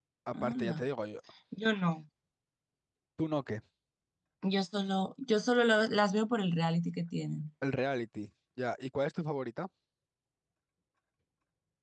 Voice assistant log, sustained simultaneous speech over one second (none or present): none